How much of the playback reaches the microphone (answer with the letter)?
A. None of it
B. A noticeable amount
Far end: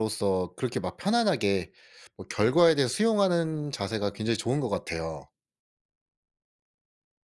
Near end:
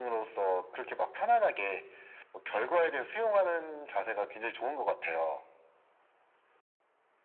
B